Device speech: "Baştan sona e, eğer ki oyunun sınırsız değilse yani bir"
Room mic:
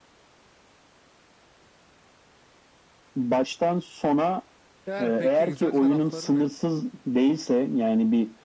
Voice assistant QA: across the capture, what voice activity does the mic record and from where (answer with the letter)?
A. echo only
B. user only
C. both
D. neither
C